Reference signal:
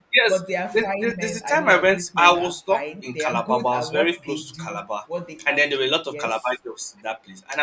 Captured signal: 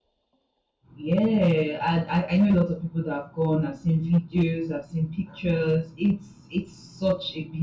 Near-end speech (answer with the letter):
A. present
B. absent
A